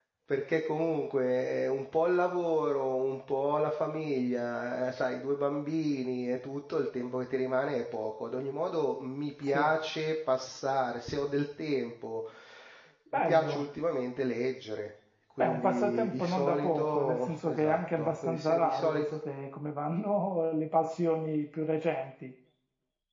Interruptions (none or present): present